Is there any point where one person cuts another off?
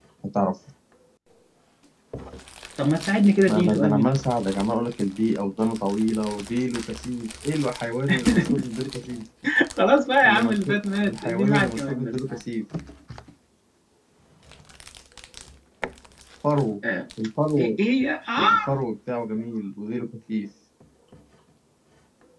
Yes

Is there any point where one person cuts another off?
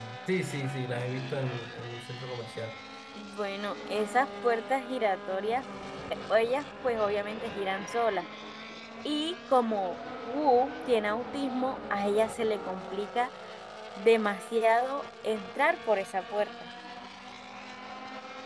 No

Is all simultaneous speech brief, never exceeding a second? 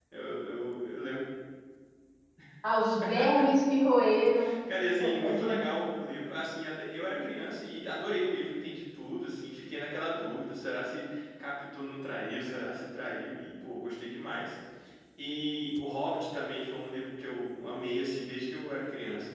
Yes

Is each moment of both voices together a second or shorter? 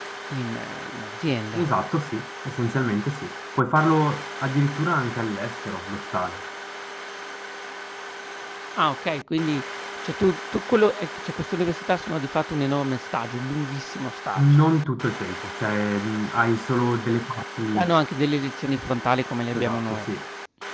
Yes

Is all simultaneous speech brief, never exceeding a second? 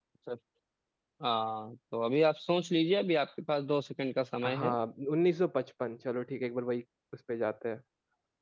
Yes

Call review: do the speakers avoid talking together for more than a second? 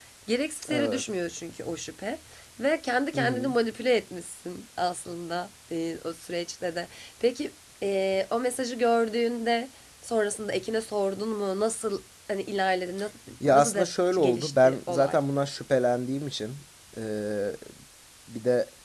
No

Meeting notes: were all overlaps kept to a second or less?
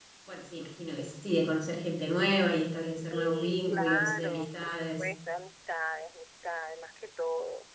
No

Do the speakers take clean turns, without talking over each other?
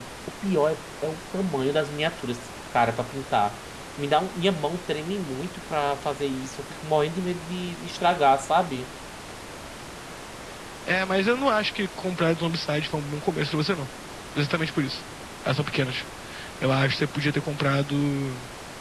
Yes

